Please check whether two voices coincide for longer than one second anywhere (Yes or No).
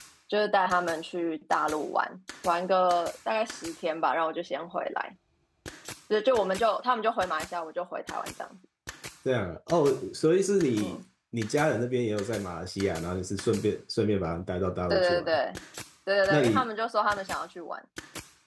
No